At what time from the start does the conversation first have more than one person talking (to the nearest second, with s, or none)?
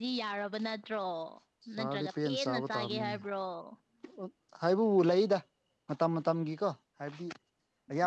2 s